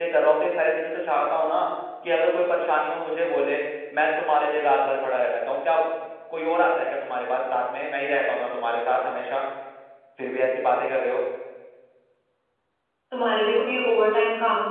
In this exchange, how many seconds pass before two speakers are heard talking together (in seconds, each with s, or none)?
none